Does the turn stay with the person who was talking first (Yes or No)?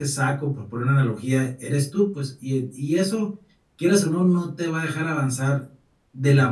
Yes